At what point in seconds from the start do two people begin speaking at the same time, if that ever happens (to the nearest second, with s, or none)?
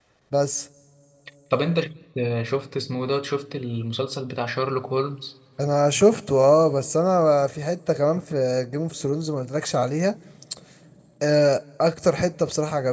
none